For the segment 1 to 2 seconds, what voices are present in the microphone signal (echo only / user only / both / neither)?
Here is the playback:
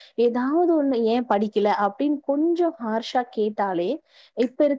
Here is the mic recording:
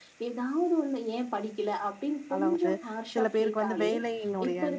echo only